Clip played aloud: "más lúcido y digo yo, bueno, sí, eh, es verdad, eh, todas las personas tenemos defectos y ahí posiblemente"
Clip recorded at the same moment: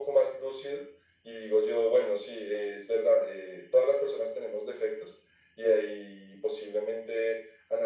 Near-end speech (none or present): none